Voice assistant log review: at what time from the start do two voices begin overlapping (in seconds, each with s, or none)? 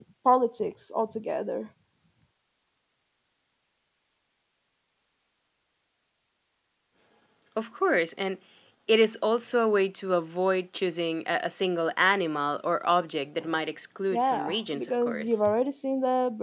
14.1 s